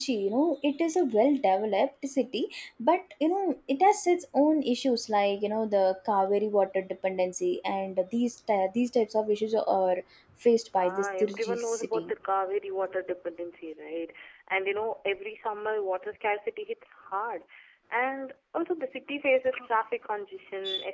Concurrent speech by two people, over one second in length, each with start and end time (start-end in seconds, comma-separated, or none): 10.8-12.1